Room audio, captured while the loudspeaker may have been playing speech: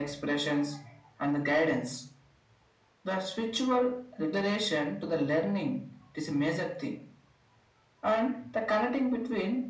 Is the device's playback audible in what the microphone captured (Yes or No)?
Yes